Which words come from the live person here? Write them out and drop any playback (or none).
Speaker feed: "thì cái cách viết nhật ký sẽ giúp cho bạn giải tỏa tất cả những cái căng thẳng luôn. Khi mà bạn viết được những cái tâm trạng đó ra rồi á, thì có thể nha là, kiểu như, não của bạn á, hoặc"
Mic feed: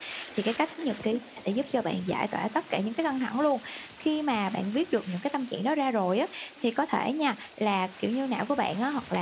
none